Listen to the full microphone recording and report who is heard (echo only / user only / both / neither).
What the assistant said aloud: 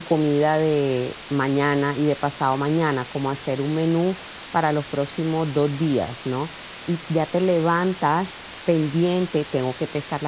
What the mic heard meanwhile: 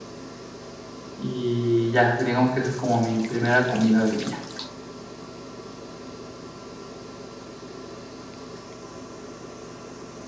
user only